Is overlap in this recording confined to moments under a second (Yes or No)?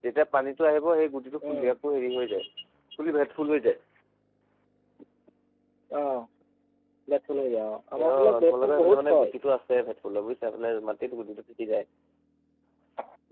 No